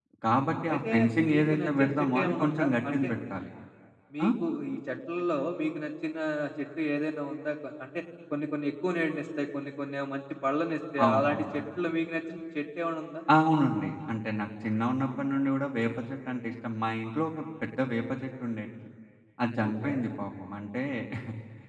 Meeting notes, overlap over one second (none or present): present